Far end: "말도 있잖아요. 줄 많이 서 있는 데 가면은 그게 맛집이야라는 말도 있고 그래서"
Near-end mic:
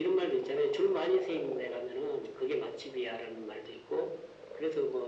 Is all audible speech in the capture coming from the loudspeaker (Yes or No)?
Yes